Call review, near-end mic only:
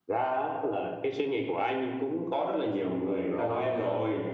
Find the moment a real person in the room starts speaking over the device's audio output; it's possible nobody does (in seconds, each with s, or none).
3.3 s